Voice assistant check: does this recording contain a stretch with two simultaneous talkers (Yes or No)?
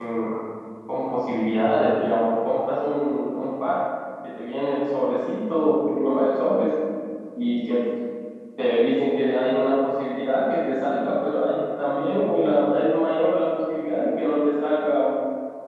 No